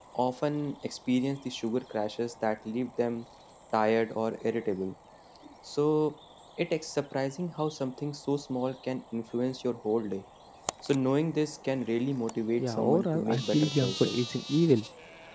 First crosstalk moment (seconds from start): 12.6 s

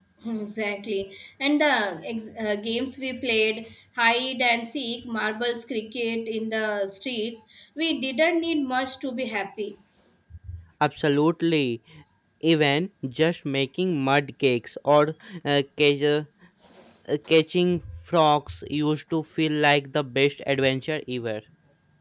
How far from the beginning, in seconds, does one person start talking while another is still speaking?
none

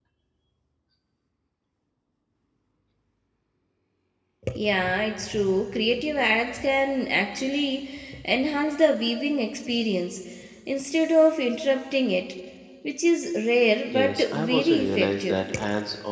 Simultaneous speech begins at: 13.9 s

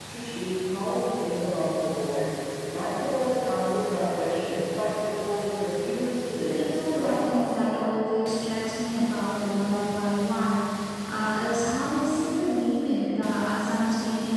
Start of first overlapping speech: 6.5 s

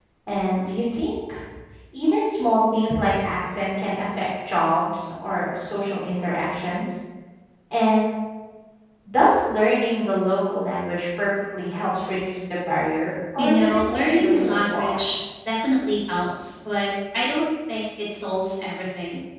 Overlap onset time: 13.4 s

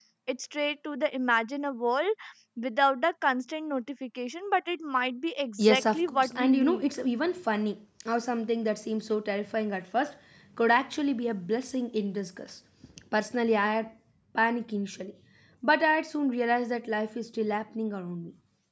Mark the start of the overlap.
5.6 s

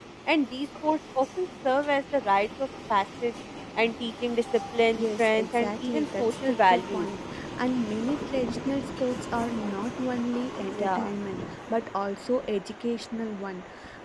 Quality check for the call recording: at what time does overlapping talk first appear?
4.9 s

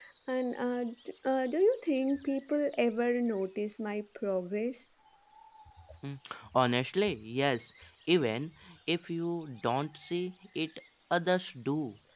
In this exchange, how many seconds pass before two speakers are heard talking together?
none

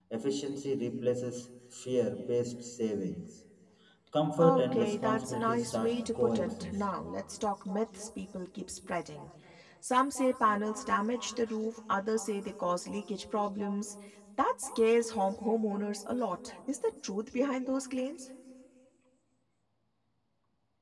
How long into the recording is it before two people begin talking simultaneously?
4.4 s

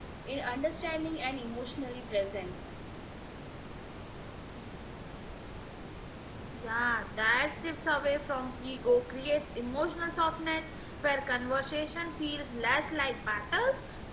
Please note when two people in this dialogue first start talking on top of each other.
none

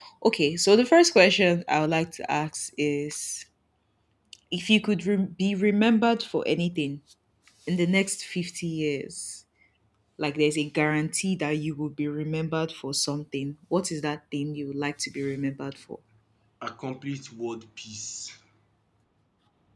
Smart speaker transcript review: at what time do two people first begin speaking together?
none

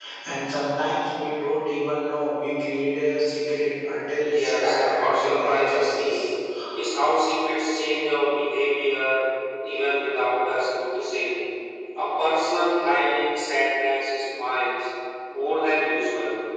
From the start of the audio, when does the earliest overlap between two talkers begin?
4.2 s

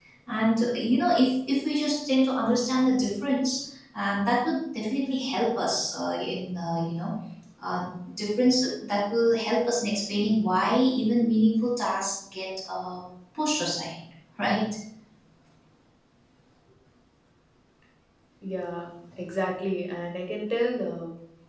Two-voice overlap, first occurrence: none

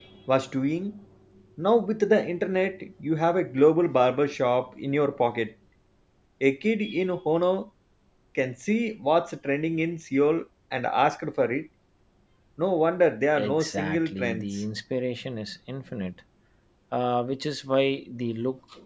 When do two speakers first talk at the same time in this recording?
13.3 s

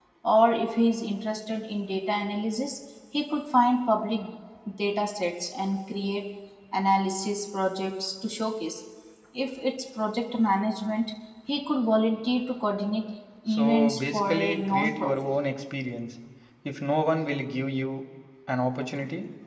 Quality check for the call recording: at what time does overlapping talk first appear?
13.5 s

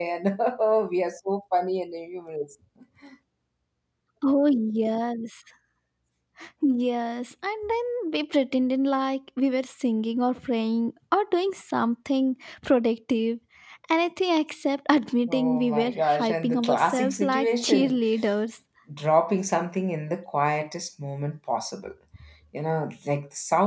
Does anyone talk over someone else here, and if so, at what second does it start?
15.3 s

